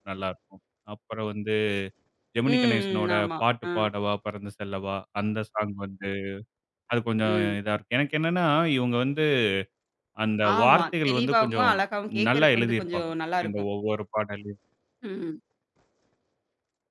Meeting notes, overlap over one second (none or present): present